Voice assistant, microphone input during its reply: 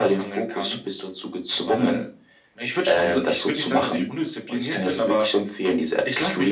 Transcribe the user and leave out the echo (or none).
none